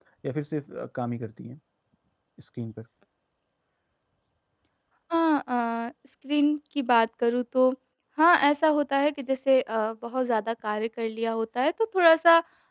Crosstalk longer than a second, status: none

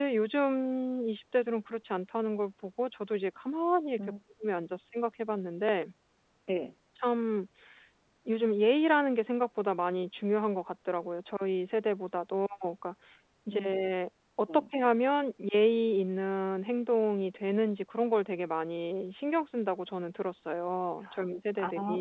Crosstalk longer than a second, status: none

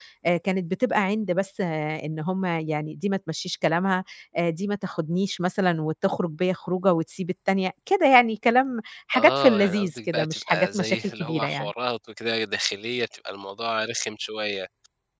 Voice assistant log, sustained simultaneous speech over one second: present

